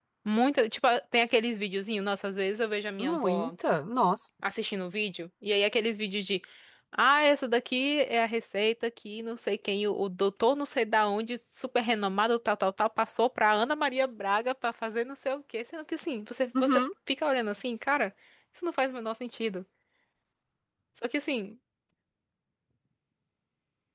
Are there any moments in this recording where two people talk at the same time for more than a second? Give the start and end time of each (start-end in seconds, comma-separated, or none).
none